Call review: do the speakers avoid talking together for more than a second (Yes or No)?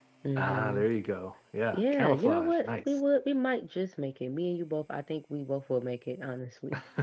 No